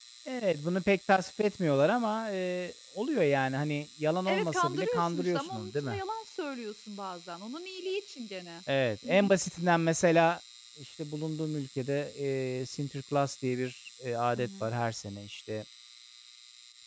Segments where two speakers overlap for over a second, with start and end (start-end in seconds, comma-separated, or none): 4.3-6.0